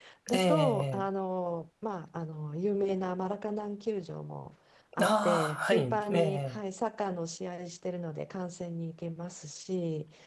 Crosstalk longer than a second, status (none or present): present